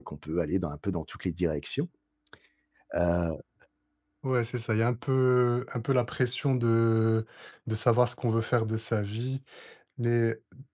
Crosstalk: none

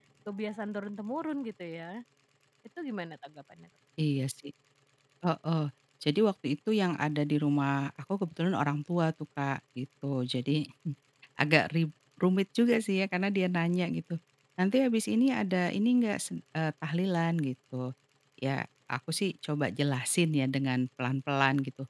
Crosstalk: none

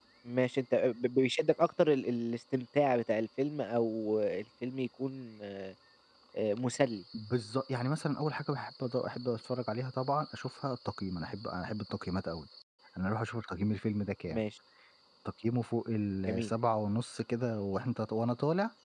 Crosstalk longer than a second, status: none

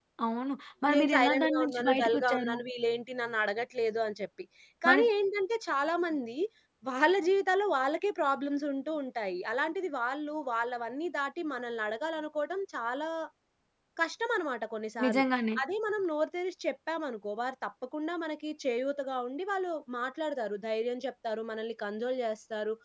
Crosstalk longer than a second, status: present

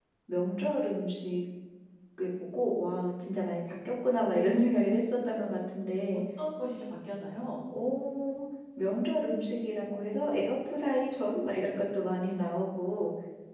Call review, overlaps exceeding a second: none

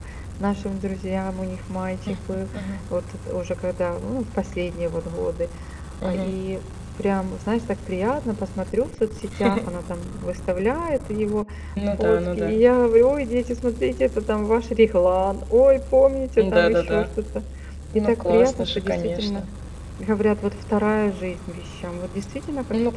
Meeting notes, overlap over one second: present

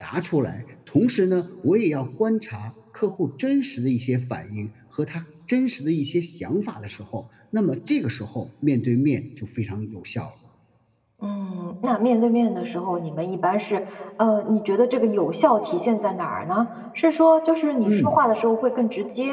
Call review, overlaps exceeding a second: none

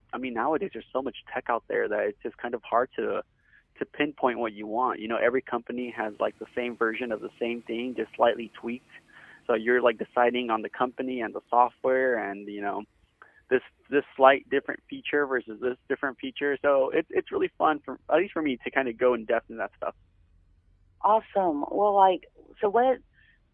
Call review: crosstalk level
none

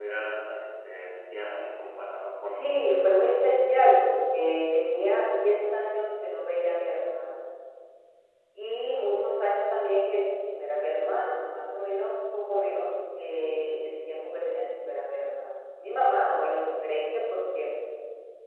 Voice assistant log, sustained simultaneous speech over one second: none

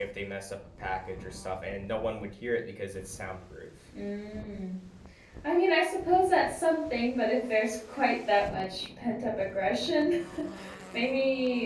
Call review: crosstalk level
none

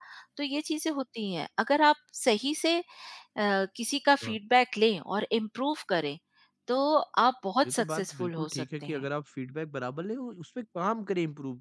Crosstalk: present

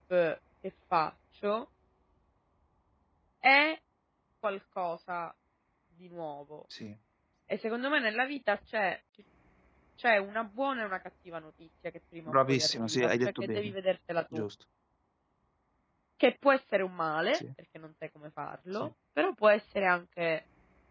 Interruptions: present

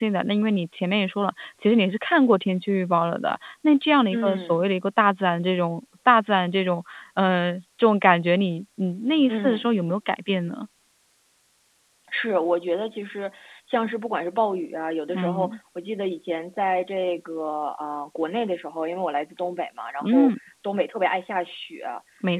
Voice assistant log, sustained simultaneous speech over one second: none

